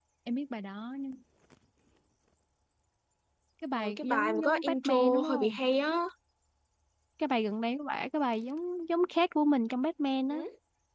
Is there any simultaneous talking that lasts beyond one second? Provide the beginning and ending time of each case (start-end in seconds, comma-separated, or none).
3.7-5.6